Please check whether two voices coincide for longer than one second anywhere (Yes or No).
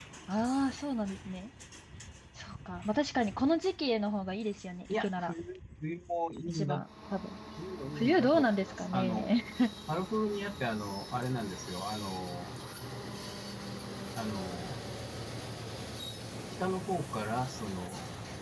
Yes